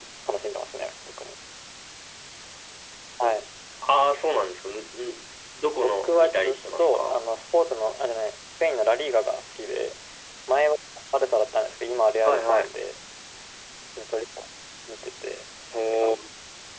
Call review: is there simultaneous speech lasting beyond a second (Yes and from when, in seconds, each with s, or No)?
Yes, from 5.7 s